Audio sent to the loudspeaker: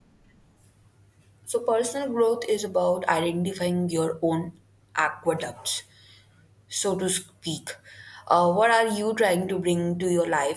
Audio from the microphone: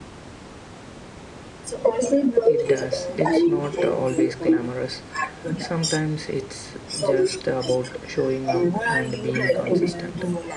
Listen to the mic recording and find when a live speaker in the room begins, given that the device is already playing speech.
2 s

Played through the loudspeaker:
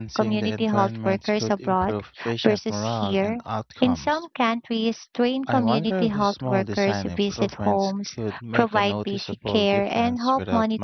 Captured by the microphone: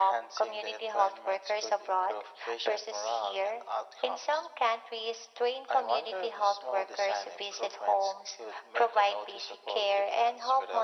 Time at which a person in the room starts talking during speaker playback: none

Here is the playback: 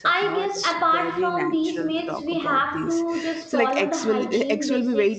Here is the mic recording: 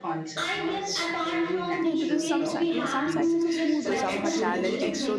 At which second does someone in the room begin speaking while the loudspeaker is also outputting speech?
2 s

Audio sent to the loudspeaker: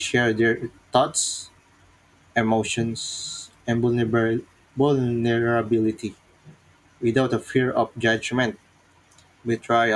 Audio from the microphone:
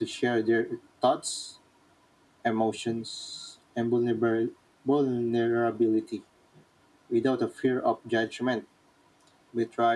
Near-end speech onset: none

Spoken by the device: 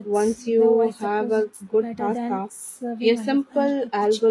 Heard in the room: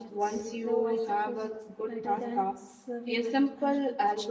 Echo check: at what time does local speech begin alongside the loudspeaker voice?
none

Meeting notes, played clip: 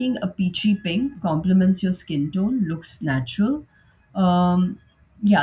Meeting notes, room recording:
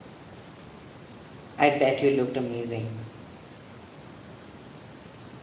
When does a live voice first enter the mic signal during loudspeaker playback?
2 s

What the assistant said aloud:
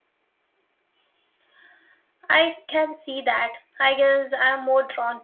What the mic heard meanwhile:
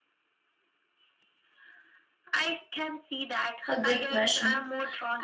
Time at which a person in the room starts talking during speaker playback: 4 s

